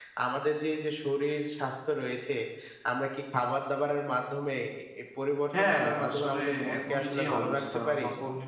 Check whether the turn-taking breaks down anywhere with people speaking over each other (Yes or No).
Yes